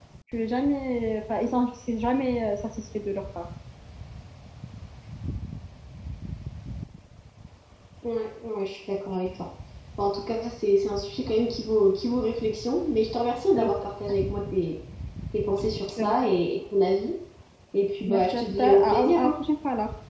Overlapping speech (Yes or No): Yes